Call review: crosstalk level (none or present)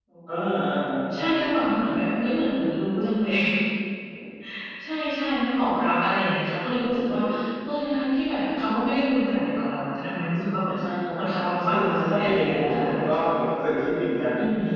present